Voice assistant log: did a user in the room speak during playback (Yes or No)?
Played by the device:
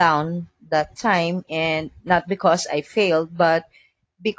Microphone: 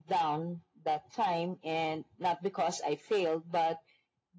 No